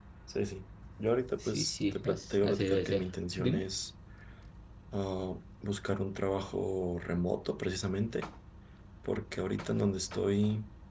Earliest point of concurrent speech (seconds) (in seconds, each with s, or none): 1.4 s